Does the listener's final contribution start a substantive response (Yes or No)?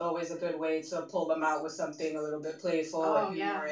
No